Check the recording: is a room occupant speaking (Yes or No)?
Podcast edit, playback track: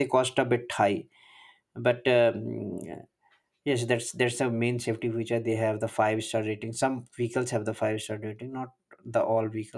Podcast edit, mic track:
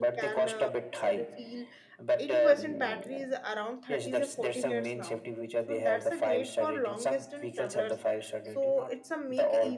Yes